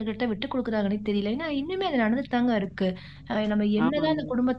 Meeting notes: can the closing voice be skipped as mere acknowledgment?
Yes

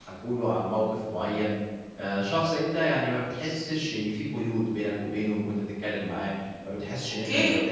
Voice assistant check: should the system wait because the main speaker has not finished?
No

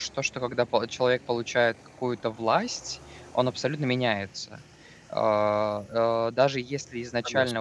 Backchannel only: Yes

